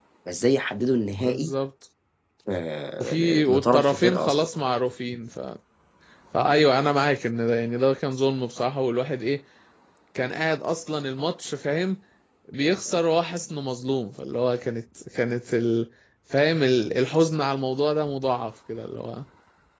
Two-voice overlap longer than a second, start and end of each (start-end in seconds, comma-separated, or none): 3.0-4.5